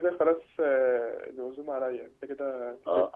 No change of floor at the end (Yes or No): No